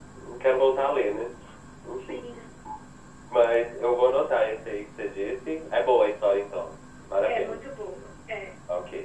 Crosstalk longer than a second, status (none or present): none